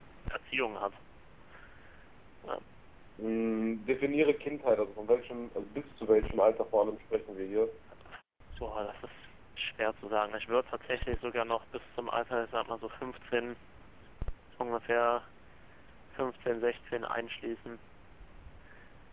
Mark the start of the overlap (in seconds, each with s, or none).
none